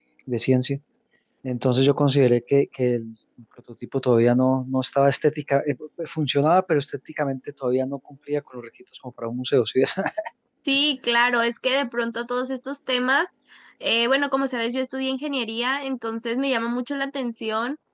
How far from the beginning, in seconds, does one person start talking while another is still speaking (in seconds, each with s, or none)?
none